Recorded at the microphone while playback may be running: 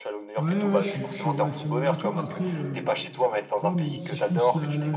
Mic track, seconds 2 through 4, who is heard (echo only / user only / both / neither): both